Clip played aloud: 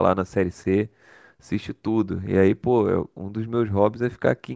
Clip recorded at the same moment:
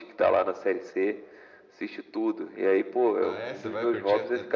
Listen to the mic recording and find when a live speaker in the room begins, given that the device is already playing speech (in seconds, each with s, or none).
3.2 s